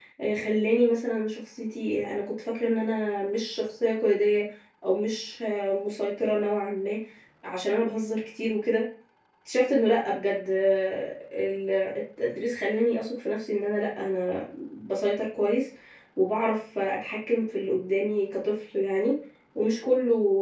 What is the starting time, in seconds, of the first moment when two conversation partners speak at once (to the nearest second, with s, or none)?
none